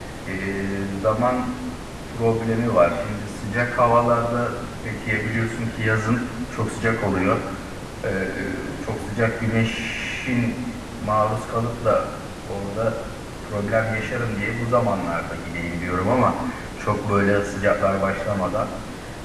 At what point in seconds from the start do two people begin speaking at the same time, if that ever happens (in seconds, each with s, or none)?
none